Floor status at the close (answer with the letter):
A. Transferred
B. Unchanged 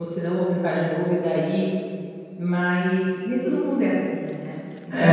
A